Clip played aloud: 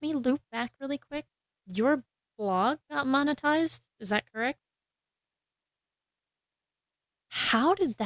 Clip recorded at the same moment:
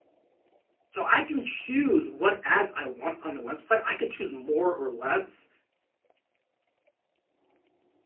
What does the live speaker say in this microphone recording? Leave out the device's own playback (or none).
so I can choose what ads I want on the website. I can choose more or less